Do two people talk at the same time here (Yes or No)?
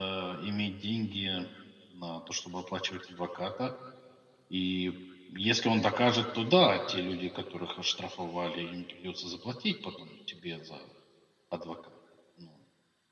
No